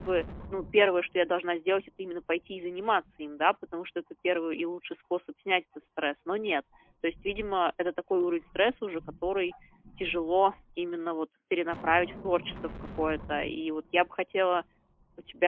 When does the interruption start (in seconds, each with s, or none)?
none